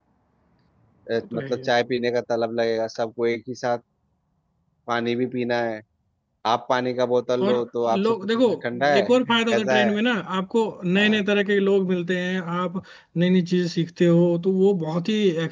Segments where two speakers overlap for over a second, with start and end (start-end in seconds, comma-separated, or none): 8.0-10.0